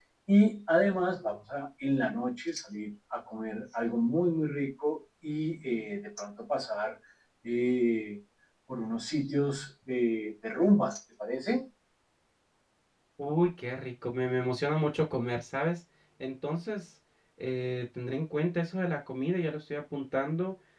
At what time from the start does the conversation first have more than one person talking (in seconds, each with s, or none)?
none